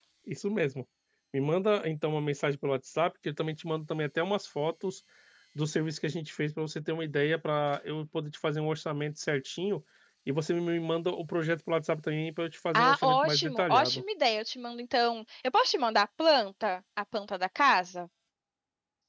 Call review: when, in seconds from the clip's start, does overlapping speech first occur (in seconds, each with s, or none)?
12.7 s